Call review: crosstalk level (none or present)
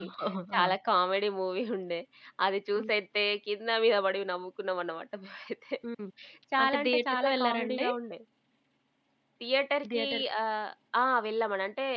present